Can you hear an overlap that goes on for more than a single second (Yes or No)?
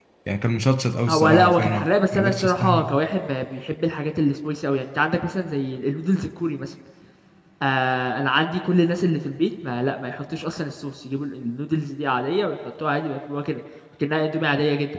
Yes